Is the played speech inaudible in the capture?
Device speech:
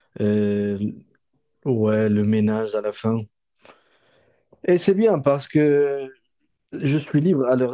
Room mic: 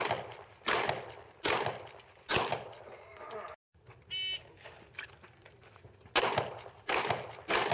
Yes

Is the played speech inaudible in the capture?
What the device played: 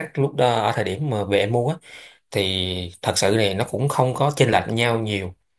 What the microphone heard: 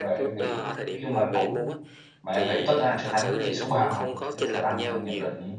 No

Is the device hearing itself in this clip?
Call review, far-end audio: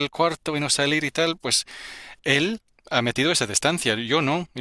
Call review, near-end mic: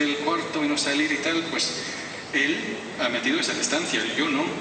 Yes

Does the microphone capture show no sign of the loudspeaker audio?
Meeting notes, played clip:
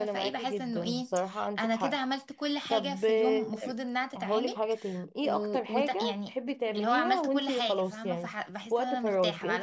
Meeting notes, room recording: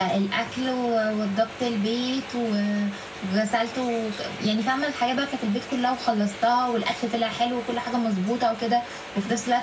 Yes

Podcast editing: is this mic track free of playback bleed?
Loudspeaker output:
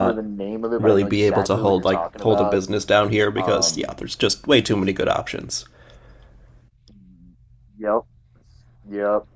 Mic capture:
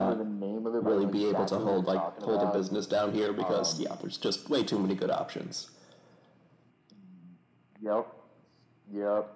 No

